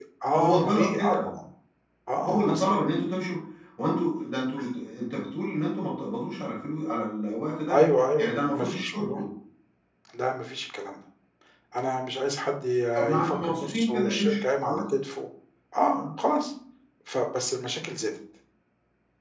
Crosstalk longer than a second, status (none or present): present